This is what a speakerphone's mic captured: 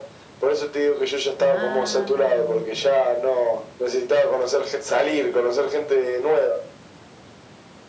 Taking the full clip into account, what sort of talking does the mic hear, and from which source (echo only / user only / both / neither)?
both